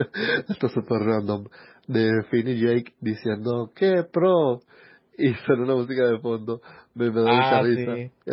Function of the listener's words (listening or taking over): listening